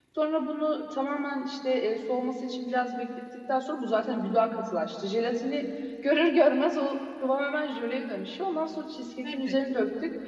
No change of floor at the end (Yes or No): Yes